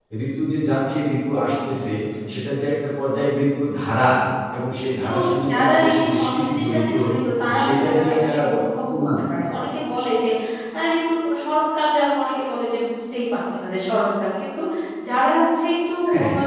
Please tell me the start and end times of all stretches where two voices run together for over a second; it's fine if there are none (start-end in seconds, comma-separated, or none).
5.0-6.9, 7.6-9.1